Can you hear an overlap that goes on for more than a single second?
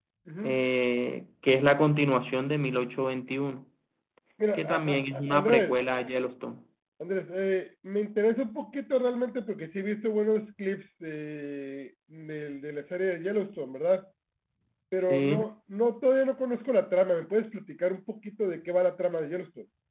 Yes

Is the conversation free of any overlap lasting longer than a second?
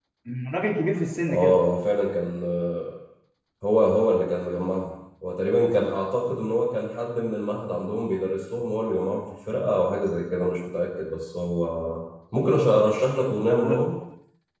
Yes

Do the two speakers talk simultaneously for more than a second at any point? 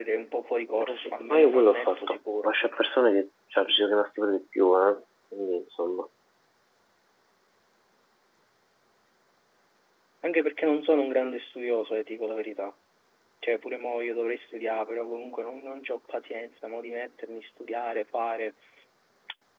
Yes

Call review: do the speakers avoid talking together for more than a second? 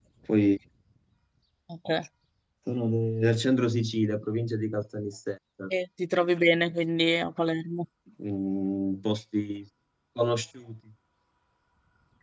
Yes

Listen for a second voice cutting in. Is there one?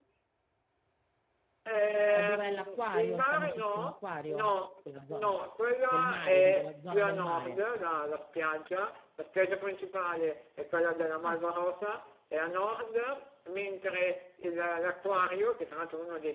Yes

